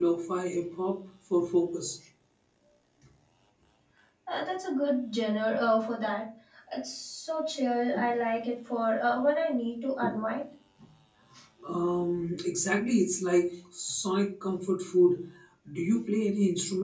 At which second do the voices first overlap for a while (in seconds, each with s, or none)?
none